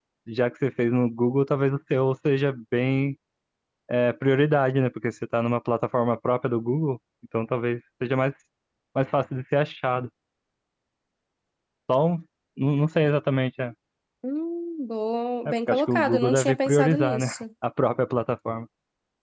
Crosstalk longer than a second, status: present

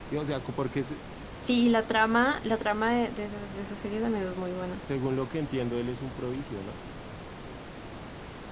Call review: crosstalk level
none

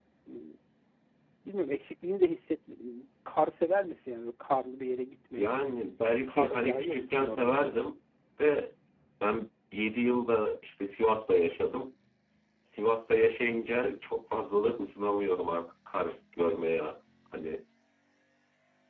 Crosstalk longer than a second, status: present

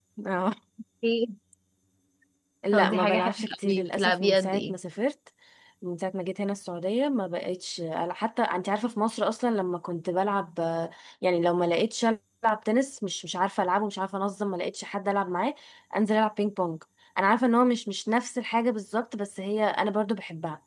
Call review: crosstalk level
present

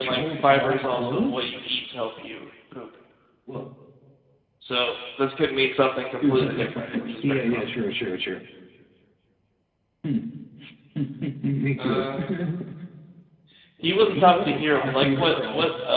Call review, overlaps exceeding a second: present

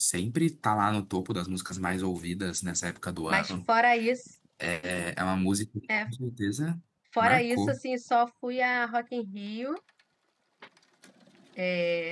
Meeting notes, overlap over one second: none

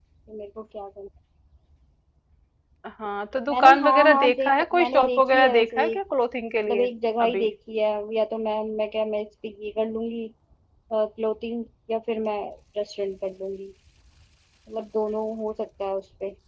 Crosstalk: present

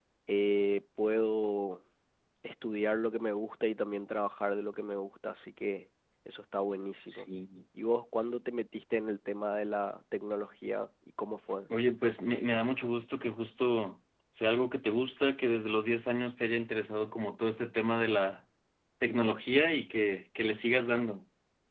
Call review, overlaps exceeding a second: none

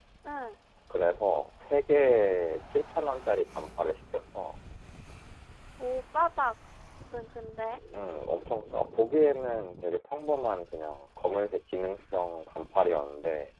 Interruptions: none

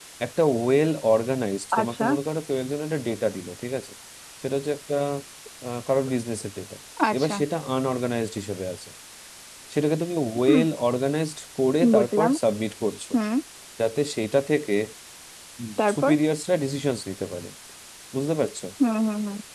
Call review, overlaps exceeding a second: none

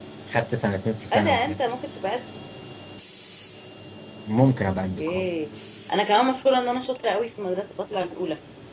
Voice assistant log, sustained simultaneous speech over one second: none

